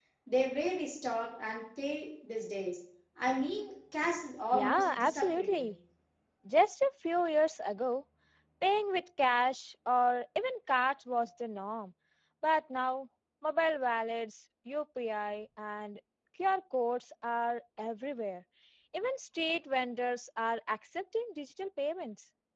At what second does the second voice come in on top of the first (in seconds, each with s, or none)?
4.5 s